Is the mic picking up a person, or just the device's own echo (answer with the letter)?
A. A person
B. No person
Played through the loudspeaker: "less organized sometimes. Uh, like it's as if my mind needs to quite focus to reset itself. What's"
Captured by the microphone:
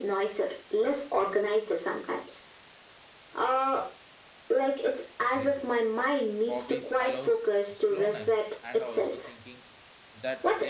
A